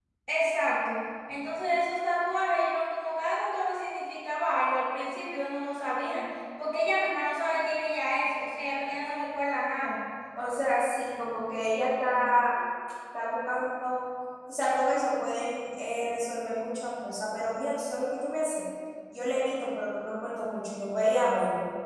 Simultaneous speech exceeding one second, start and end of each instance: none

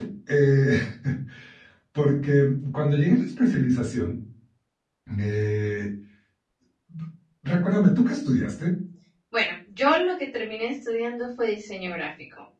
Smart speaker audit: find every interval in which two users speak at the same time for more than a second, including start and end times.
none

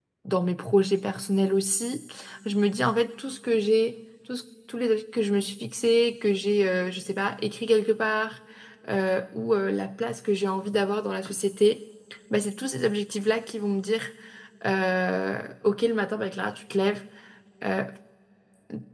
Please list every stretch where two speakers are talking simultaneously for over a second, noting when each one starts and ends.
none

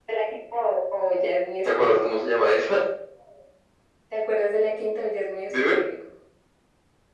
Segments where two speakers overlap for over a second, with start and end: none

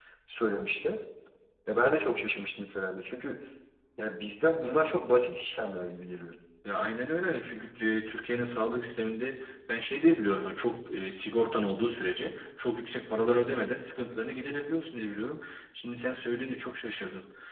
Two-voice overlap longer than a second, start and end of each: none

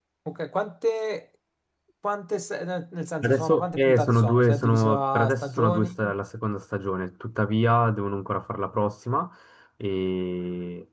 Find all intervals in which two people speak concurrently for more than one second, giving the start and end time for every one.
3.2-6.0

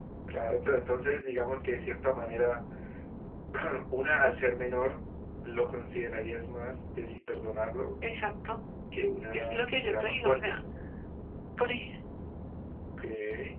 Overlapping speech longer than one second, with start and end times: 9.3-10.6

